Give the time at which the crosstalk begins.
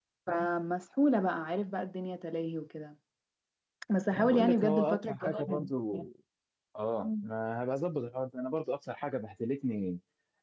4.1 s

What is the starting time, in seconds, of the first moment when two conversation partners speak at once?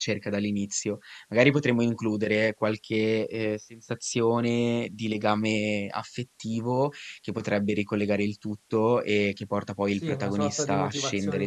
9.9 s

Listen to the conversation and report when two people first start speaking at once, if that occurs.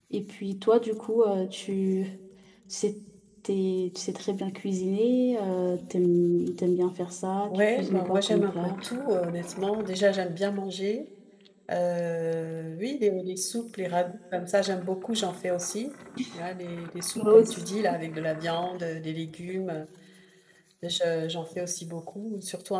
7.5 s

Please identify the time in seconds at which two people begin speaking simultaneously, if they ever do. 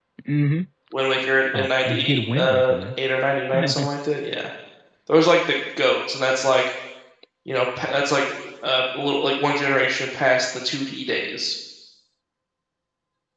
1.5 s

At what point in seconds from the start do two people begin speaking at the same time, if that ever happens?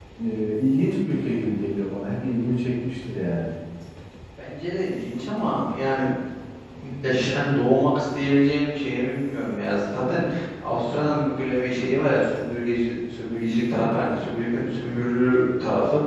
none

